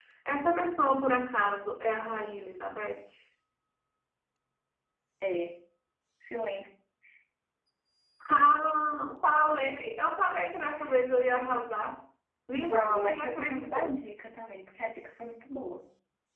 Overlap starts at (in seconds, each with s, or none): 12.6 s